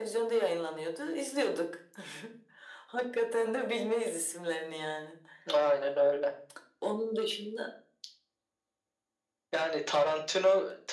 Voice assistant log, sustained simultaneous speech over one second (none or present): none